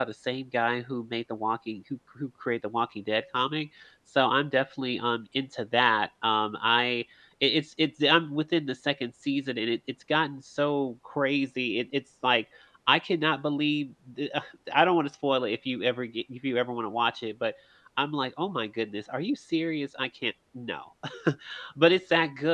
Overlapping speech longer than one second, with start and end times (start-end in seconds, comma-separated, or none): none